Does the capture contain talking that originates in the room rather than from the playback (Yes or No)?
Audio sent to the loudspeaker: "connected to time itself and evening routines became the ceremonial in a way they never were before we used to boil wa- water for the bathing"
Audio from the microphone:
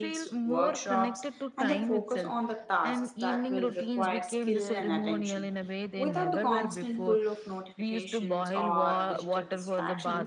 Yes